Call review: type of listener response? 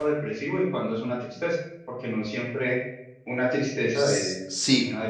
taking over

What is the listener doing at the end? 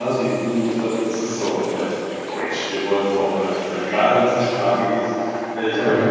listening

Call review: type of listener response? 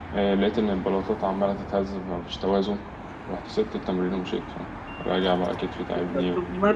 taking over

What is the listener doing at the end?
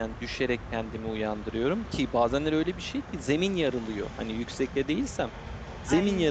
listening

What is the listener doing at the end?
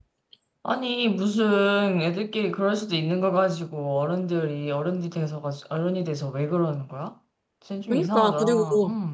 taking over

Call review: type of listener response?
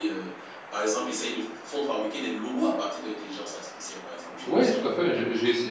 taking over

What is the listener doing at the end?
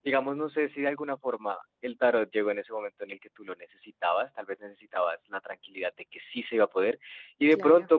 listening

